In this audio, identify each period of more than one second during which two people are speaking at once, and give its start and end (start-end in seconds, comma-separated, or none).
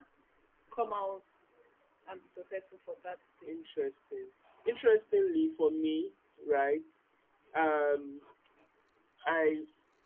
none